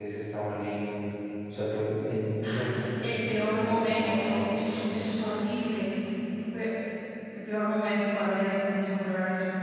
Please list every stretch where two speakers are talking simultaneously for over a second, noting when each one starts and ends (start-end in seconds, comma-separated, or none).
3.3-4.6